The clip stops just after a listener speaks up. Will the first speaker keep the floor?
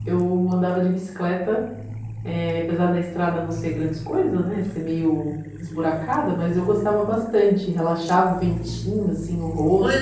No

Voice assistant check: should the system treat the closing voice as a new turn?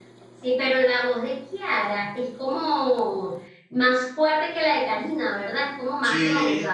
Yes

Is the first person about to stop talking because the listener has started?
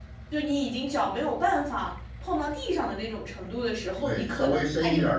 Yes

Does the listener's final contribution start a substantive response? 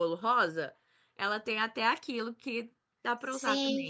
Yes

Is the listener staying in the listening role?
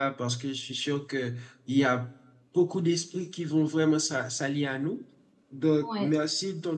Yes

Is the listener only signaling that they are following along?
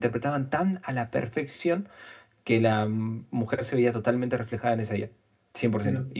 Yes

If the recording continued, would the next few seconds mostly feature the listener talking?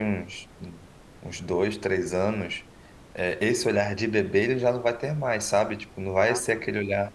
No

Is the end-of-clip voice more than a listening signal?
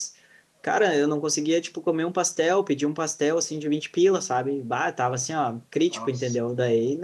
No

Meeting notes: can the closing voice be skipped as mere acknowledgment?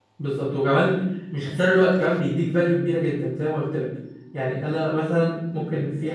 Yes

